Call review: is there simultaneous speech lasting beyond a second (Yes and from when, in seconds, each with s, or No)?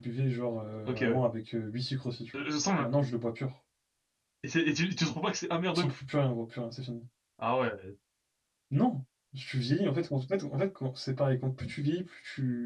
No